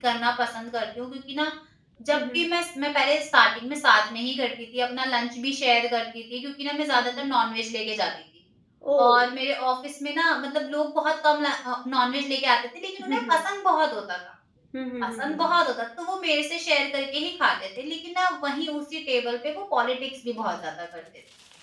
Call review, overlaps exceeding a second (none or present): none